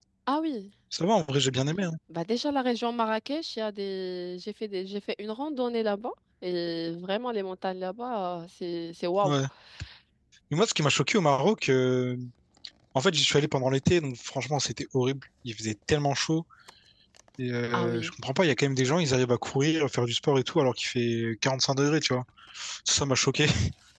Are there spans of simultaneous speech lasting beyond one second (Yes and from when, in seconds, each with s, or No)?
No